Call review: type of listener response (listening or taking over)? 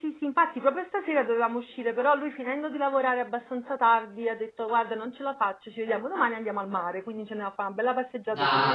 taking over